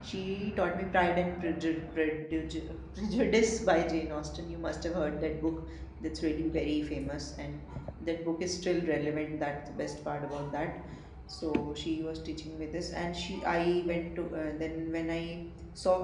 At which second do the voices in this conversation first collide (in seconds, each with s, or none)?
none